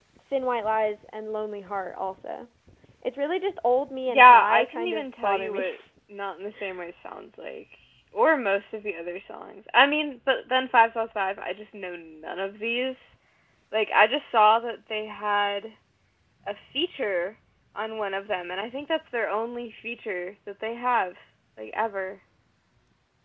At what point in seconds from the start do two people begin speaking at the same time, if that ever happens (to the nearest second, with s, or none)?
4 s